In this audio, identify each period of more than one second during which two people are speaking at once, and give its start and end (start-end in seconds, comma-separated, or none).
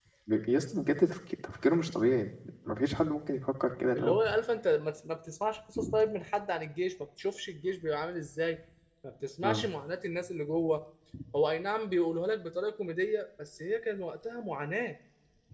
none